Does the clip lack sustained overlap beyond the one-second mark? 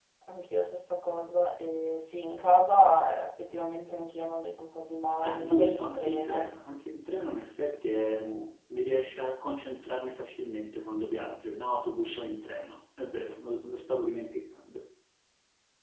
No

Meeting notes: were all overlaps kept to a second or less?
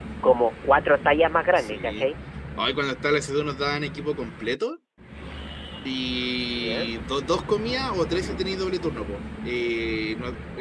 Yes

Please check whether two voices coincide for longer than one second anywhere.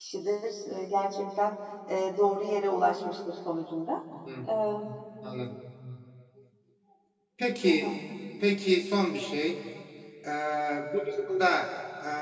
No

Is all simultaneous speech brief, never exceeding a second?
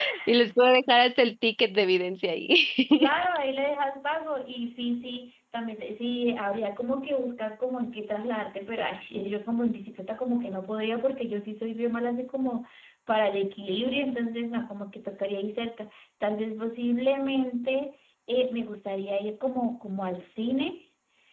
Yes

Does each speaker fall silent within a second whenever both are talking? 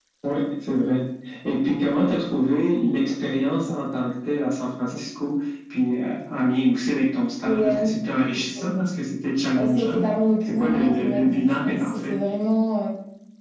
No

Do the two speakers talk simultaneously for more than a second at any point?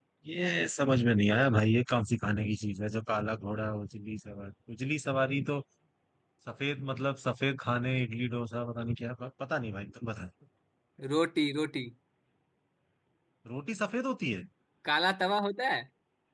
No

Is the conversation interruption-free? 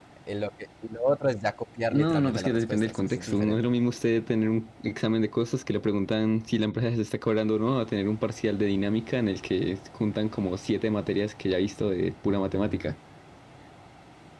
No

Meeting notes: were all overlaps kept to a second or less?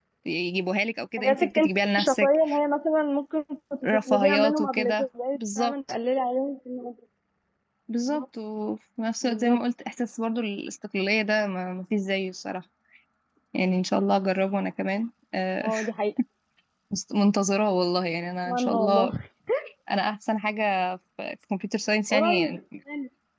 No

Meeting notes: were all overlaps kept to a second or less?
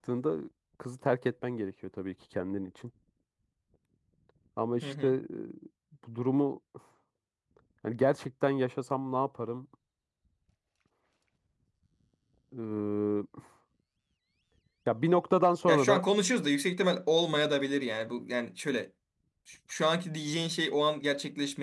Yes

